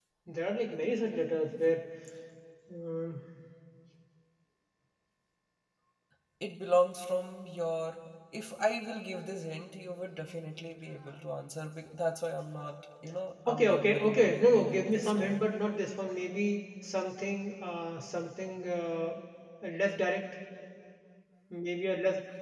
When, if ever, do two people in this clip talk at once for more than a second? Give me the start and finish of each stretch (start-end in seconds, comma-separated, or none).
13.5-15.5